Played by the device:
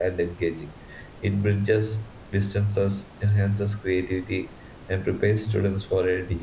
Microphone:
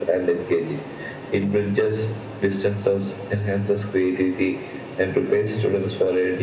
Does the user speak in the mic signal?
No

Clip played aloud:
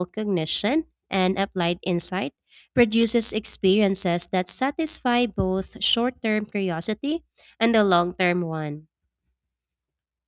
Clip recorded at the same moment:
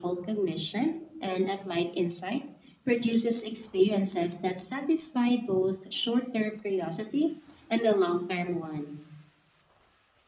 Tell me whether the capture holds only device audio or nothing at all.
Yes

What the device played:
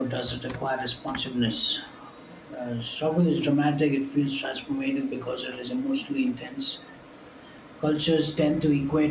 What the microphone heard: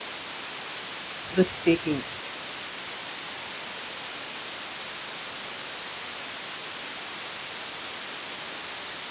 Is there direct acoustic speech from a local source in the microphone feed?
Yes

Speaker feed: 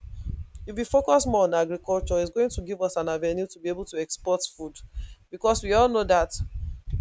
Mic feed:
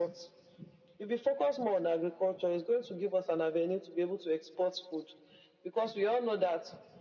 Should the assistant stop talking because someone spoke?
No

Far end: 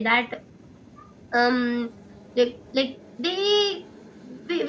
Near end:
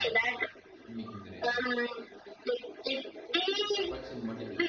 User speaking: Yes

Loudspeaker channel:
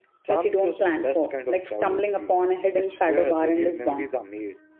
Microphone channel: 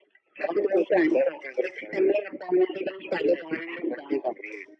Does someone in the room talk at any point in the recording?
No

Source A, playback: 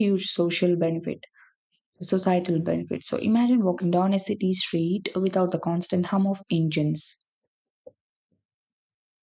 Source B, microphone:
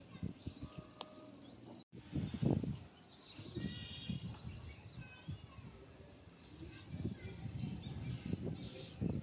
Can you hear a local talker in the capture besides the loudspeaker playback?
No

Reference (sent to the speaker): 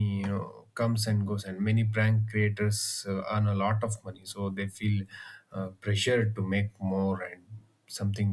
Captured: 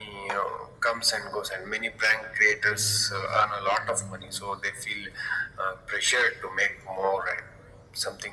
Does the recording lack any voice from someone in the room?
No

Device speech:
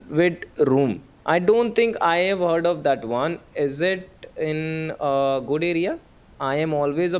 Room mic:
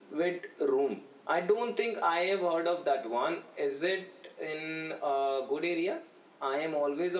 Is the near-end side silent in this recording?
Yes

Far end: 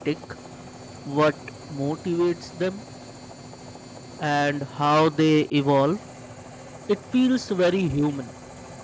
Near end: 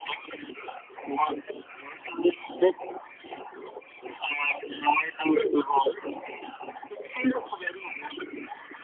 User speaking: No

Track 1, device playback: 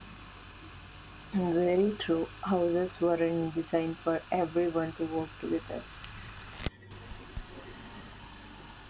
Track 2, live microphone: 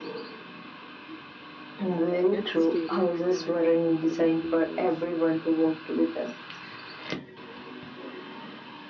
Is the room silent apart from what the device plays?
No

